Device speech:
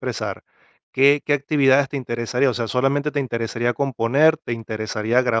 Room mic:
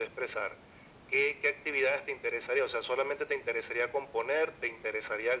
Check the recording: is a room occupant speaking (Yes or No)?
No